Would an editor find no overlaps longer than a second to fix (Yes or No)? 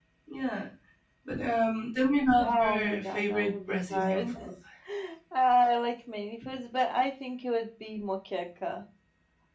No